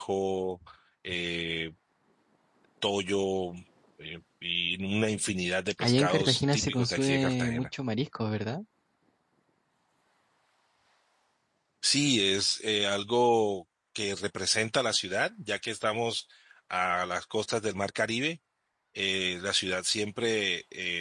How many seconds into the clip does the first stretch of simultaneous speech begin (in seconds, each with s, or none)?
5.8 s